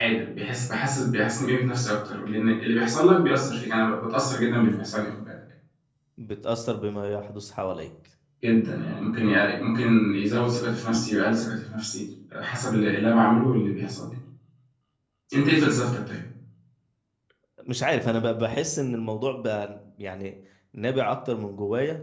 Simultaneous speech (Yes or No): No